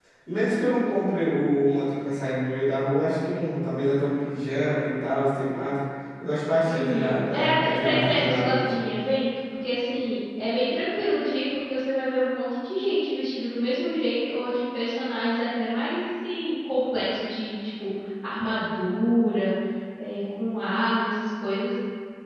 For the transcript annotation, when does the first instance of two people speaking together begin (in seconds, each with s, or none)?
6.7 s